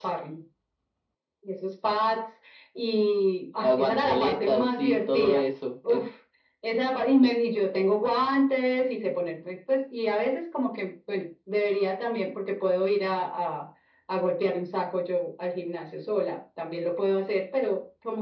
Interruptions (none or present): present